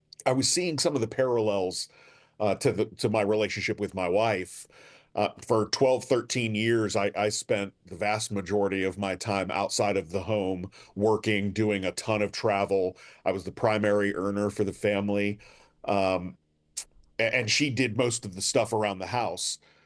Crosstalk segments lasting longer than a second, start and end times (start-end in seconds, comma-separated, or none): none